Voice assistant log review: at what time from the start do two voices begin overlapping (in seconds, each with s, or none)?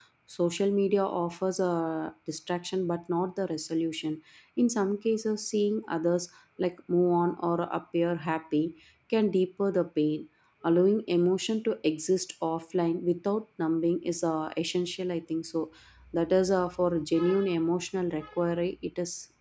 none